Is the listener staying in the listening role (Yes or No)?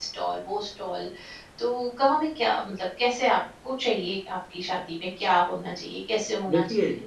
Yes